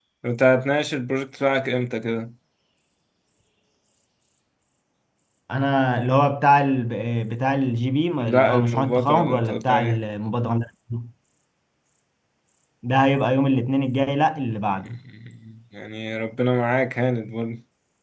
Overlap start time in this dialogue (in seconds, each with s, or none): 8.2 s